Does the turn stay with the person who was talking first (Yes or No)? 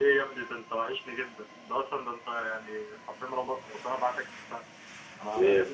Yes